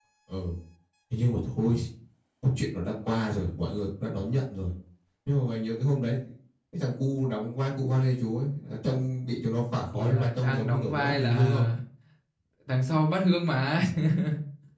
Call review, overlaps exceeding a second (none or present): present